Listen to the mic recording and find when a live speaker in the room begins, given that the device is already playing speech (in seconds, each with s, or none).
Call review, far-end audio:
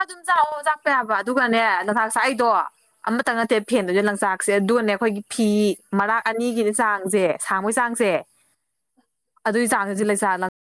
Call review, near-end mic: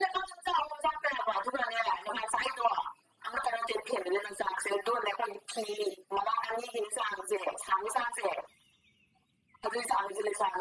none